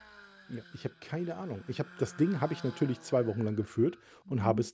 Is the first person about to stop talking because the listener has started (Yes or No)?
No